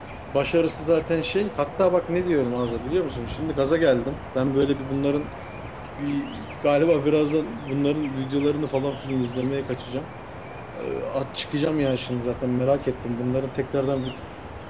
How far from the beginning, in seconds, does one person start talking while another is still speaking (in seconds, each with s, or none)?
none